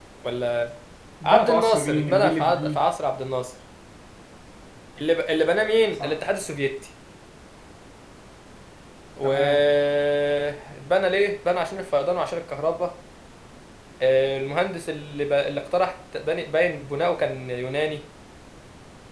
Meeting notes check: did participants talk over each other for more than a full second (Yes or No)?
Yes